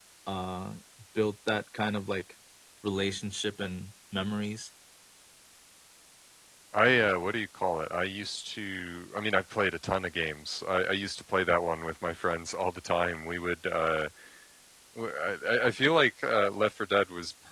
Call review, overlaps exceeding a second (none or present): none